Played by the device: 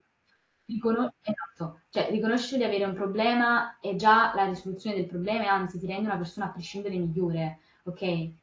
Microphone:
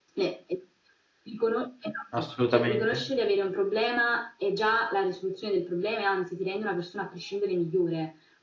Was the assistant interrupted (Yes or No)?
Yes